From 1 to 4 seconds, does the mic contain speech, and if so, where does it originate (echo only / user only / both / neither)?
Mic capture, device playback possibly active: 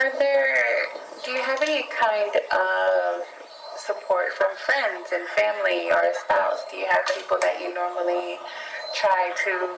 echo only